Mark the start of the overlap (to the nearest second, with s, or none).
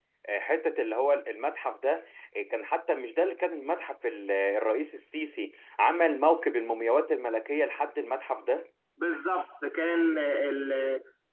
none